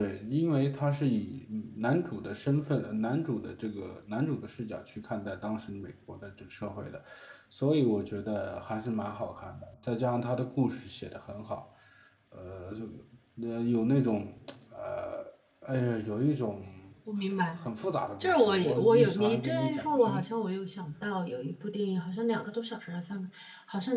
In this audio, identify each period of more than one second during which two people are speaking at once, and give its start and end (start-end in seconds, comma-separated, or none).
18.2-20.2